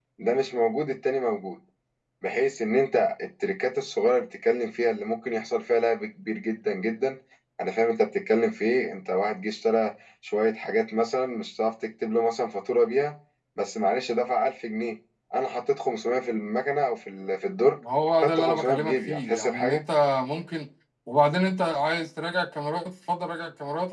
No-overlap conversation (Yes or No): No